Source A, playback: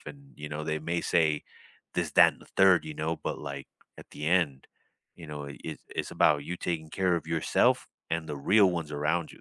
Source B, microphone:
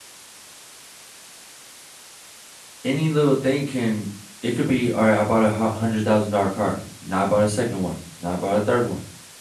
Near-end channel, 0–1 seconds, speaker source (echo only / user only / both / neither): neither